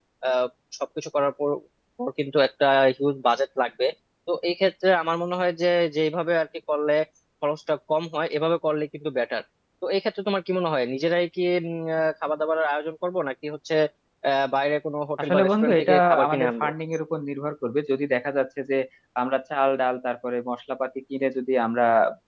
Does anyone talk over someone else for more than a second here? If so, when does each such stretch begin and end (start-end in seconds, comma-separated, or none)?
15.2-16.7